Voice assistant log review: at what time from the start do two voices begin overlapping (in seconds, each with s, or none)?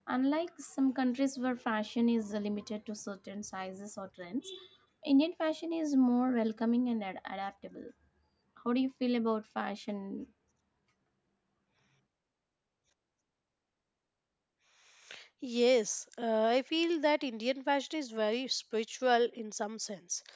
none